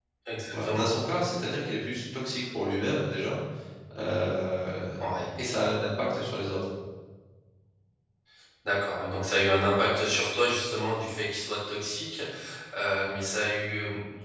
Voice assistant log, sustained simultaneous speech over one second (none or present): none